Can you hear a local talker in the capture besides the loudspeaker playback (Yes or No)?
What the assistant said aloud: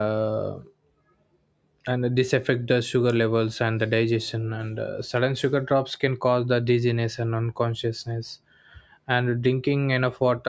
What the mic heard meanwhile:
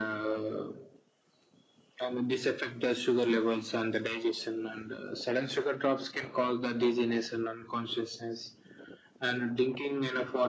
No